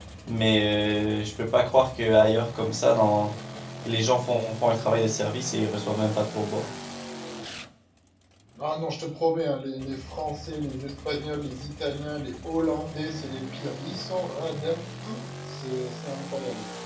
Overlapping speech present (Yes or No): No